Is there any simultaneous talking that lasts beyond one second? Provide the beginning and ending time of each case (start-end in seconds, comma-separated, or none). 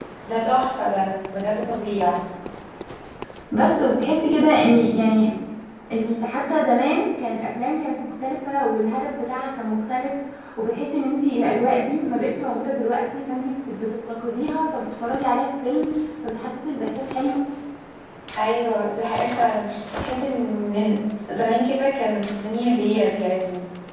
none